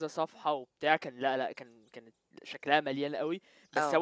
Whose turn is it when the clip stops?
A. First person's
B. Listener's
A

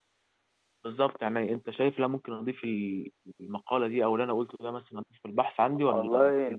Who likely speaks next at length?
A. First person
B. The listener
B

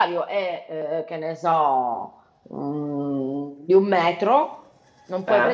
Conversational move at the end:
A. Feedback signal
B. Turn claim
A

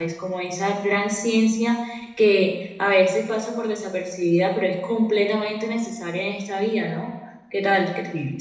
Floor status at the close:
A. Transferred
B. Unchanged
A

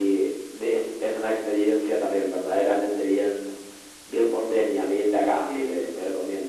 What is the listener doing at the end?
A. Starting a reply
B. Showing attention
B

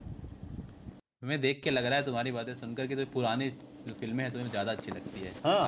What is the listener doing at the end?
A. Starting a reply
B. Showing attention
A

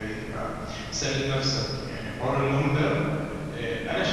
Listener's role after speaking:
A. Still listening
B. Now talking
A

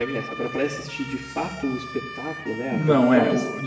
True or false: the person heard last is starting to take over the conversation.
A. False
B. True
B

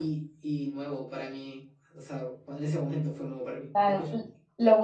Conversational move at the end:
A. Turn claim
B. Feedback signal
A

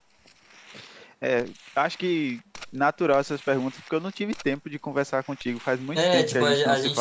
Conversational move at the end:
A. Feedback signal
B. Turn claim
B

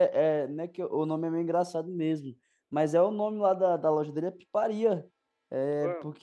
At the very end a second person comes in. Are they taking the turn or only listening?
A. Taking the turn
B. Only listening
B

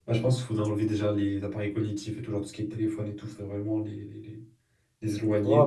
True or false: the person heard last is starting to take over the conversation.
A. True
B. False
A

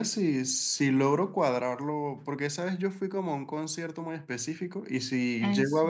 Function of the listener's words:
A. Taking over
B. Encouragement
B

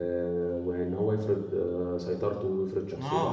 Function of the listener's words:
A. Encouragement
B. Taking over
B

